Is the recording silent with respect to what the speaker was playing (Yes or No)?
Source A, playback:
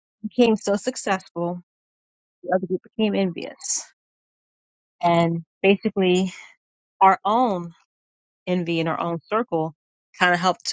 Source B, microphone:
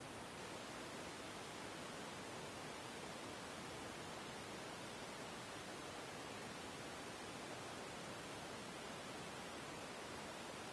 Yes